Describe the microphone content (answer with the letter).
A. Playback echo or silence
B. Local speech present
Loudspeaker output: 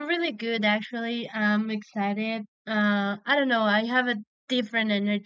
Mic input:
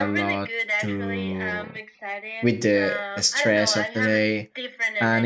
B